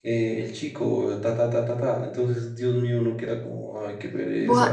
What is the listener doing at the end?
taking over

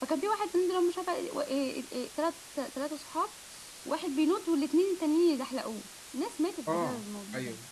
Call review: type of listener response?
taking over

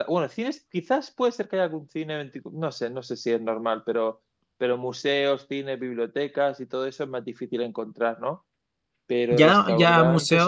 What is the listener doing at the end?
taking over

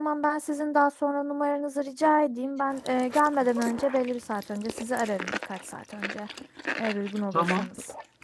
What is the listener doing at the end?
taking over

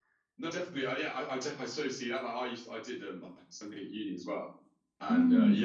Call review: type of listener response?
listening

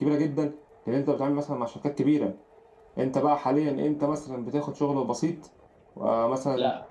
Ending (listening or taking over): taking over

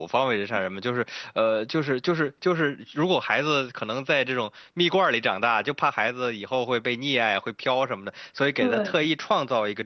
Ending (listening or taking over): listening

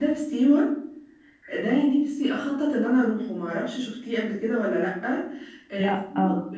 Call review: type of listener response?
listening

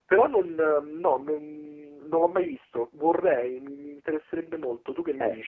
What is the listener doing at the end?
taking over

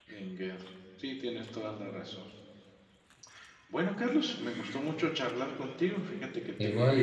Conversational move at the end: listening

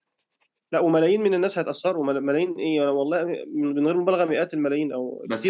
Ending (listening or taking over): taking over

